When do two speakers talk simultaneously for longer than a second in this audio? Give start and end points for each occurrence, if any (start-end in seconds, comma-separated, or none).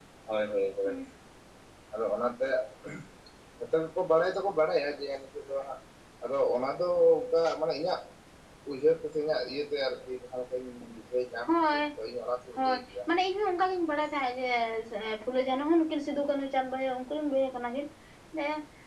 none